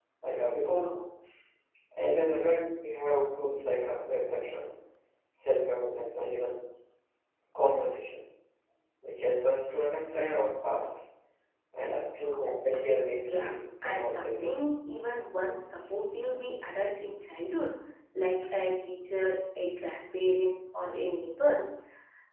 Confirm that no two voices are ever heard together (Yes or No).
No